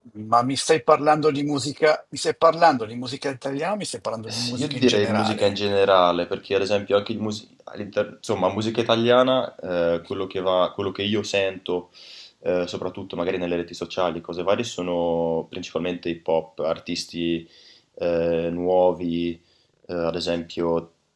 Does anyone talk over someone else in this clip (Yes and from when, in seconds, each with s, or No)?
Yes, from 4.3 s